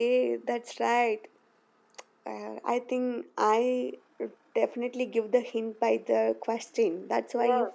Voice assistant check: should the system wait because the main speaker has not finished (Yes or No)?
No